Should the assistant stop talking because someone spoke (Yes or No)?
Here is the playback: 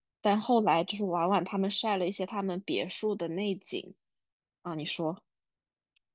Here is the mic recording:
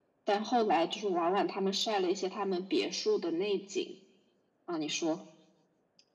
No